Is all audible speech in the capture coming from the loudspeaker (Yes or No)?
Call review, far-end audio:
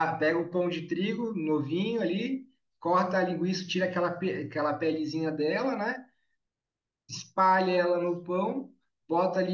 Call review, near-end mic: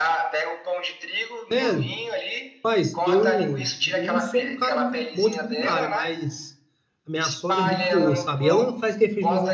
No